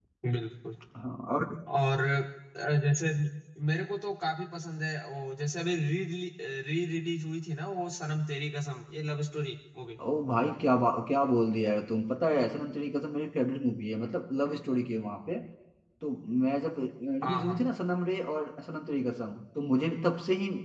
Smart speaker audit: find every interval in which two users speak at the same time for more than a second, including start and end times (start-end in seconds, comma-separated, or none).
none